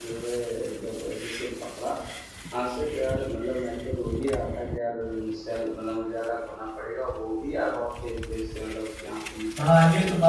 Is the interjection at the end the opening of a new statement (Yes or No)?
Yes